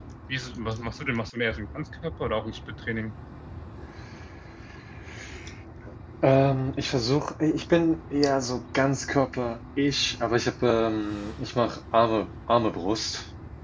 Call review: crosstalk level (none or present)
none